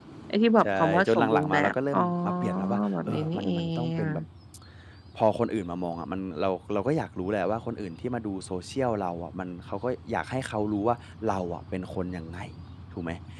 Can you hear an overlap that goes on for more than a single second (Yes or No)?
Yes